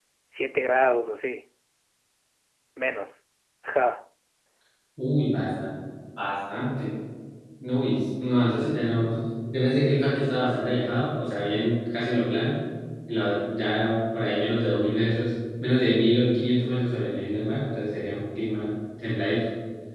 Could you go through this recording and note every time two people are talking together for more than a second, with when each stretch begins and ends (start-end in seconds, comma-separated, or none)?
none